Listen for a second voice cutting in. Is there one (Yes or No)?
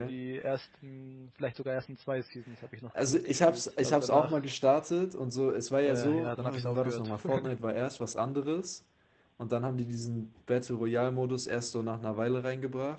Yes